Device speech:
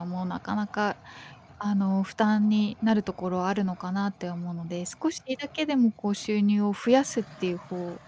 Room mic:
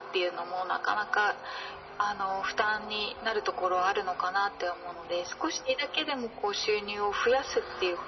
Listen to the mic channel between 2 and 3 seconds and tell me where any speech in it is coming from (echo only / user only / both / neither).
echo only